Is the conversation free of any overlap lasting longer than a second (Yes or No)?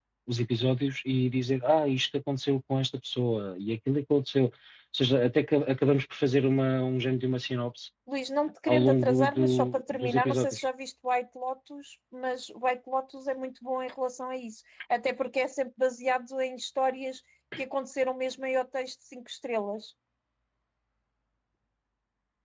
No